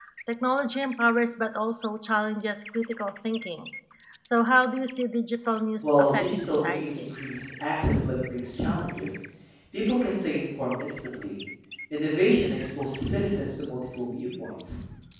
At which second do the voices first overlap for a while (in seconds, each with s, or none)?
5.8 s